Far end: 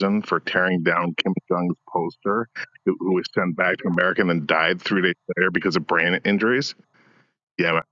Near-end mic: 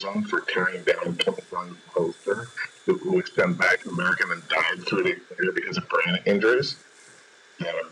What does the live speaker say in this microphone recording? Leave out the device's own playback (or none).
none